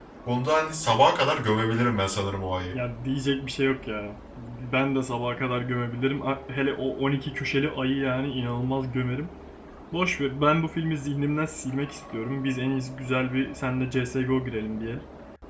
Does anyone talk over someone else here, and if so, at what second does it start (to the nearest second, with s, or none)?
none